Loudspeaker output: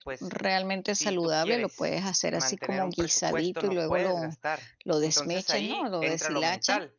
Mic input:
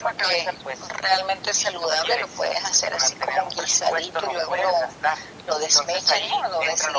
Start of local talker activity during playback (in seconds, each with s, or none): none